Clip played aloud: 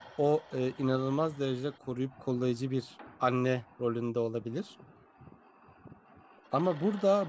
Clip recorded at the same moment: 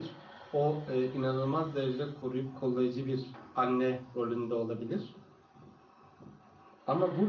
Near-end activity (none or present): none